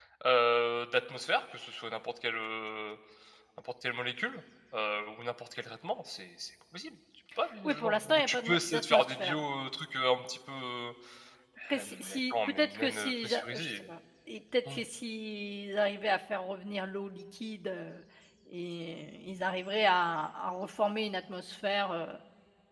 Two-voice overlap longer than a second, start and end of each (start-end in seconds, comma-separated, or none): 7.6-9.4, 11.8-13.8